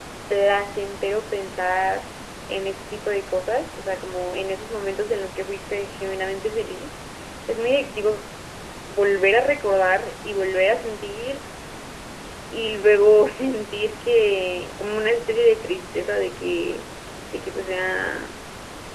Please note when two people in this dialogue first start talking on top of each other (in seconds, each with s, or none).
none